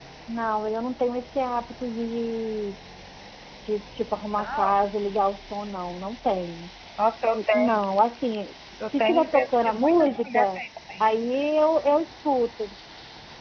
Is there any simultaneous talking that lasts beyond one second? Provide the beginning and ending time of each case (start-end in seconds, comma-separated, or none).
9.0-10.6